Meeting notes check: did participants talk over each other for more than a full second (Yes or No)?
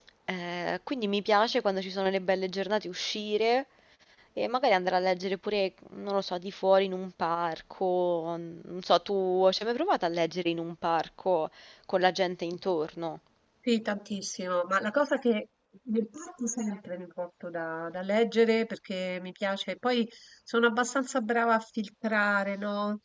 No